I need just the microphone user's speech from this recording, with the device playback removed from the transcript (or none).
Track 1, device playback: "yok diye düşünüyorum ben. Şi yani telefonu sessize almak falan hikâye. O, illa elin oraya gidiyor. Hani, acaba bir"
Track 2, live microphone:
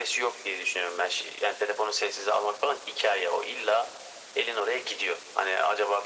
none